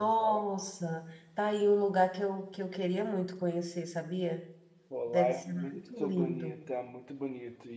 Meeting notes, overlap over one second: present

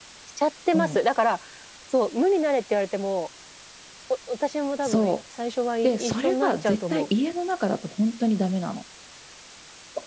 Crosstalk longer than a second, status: present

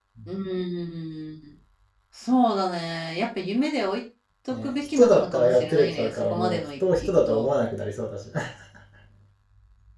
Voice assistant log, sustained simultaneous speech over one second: present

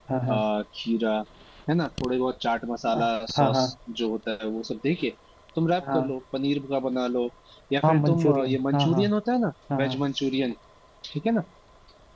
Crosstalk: present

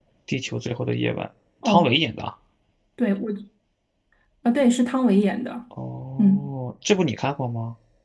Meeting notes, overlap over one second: none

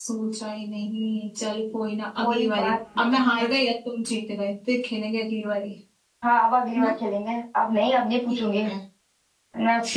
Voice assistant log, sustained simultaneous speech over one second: present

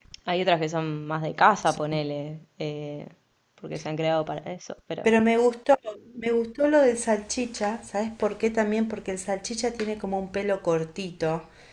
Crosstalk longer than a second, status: none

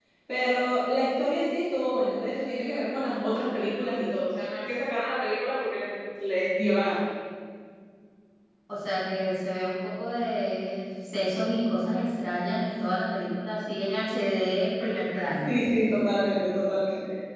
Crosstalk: none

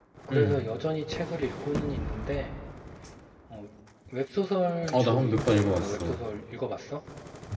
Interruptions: present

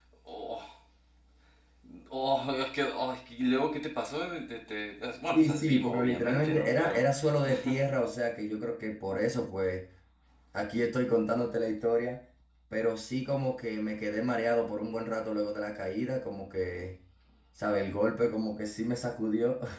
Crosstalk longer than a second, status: present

